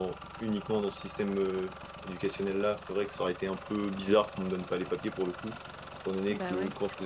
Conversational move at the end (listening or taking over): listening